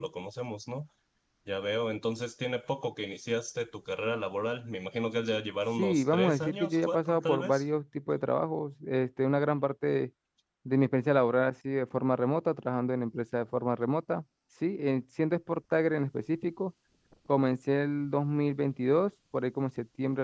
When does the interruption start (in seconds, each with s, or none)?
5.8 s